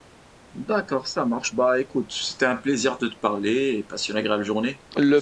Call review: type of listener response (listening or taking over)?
taking over